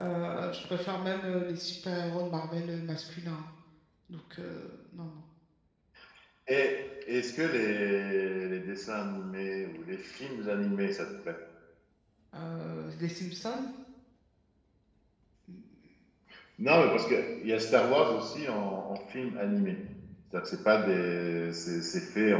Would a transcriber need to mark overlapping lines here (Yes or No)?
No